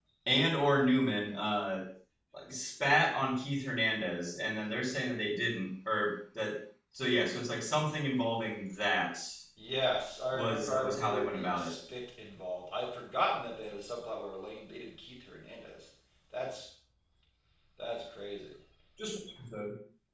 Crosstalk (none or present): present